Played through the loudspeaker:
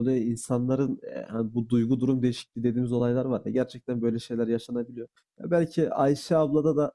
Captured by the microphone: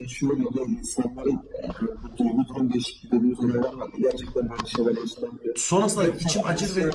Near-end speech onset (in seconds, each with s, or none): 5.5 s